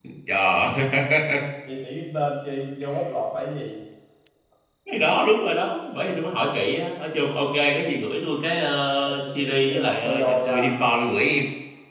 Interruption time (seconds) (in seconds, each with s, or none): 9.0 s